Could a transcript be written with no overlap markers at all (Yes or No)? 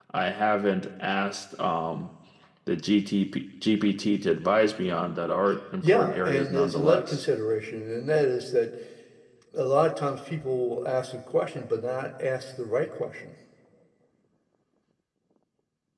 No